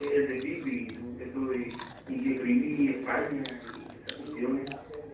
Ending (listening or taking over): taking over